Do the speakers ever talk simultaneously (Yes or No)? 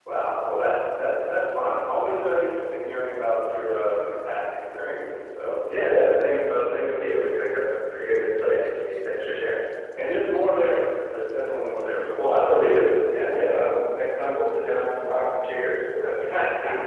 Yes